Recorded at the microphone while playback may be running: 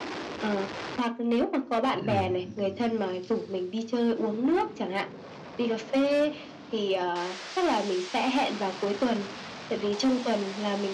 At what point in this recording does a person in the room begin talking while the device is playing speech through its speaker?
1.9 s

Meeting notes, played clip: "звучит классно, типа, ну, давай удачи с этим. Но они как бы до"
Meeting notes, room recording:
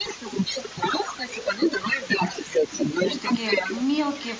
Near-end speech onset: 3.0 s

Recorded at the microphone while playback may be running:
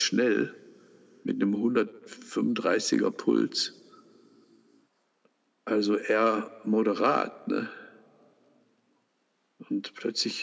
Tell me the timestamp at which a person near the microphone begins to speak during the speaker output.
none

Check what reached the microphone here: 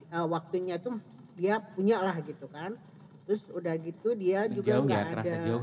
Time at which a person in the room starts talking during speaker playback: 4.5 s

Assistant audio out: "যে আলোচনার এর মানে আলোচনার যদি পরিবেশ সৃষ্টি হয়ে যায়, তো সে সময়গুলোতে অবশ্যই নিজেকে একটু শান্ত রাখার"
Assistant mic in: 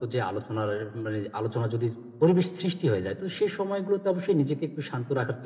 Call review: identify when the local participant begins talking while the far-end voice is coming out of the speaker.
none

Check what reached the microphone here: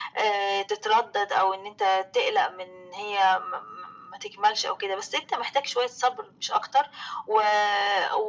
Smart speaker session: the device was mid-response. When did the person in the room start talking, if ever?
none

